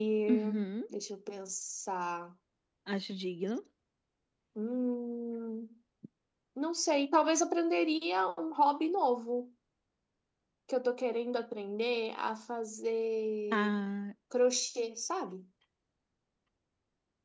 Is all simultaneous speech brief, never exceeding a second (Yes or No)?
Yes